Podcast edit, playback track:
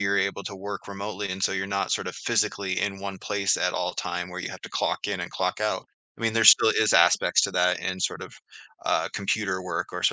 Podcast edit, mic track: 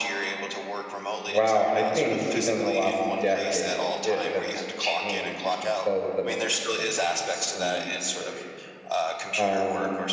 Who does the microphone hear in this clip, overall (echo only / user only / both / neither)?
both